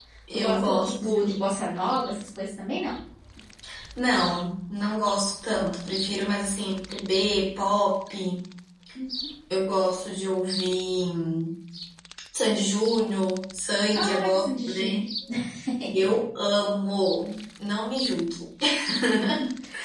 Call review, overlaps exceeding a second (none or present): present